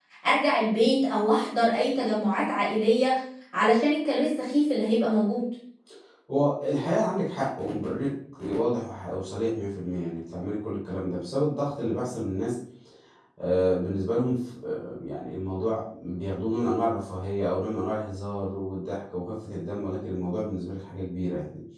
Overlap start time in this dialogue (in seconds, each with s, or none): none